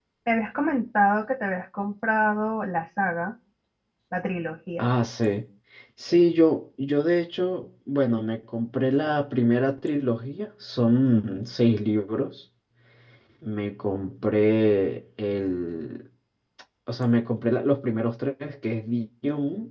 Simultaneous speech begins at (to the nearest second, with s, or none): none